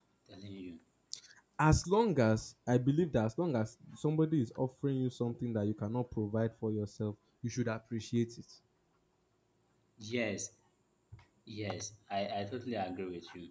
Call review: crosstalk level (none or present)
none